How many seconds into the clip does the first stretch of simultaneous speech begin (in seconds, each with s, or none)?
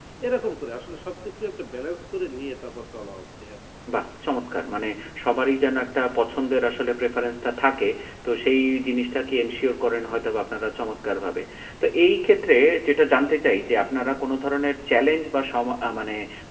none